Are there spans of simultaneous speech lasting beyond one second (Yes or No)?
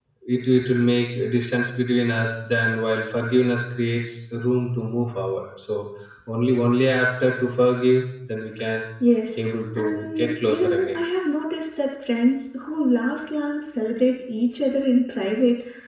Yes